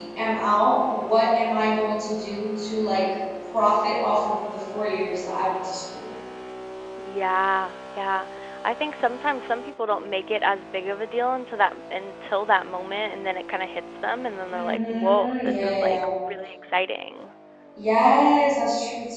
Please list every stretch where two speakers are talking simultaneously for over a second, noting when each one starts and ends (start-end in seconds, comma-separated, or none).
14.5-16.1